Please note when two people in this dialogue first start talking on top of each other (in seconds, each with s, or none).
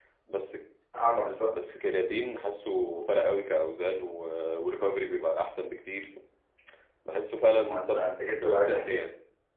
7.7 s